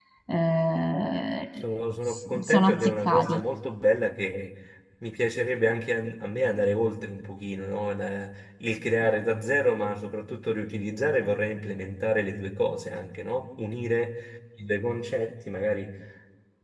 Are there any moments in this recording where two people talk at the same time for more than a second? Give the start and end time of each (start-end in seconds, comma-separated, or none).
2.1-3.4